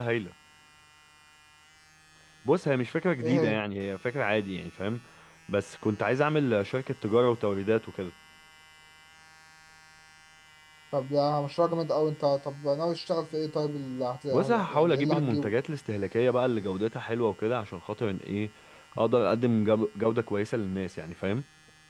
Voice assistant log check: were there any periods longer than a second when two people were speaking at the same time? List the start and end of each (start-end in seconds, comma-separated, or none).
14.3-15.5